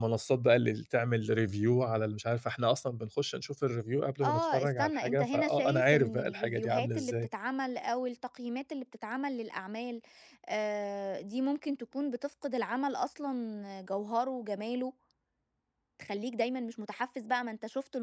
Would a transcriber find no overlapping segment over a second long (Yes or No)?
No